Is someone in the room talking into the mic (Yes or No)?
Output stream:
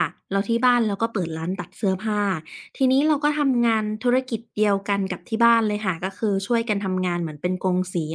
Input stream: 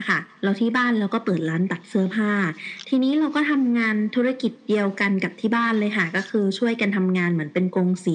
No